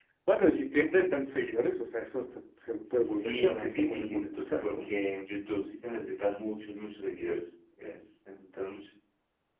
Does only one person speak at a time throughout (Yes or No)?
No